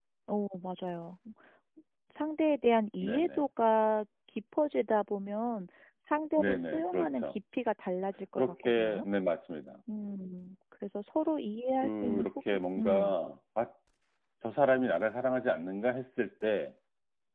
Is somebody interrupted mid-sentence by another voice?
Yes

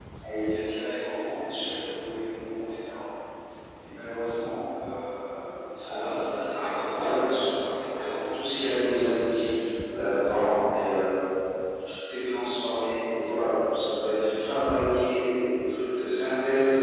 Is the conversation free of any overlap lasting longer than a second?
No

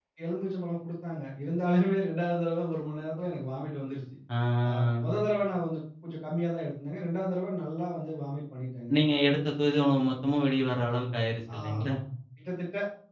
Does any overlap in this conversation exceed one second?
No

